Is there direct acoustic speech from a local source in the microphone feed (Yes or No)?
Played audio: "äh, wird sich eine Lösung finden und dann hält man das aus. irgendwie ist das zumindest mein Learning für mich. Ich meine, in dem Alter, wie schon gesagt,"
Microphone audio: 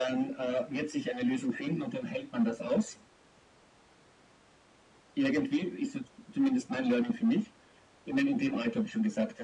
No